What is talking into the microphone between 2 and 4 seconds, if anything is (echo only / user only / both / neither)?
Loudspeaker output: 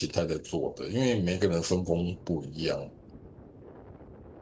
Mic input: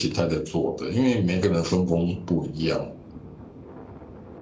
echo only